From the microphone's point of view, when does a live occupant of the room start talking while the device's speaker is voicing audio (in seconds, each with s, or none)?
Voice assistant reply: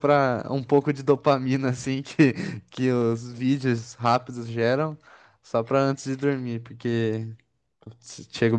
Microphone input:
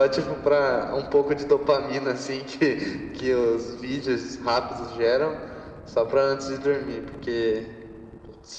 none